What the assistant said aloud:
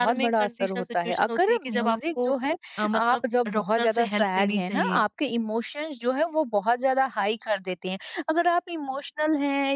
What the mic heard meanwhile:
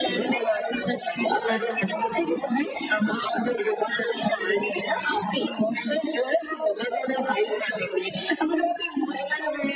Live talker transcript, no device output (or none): मैं समझ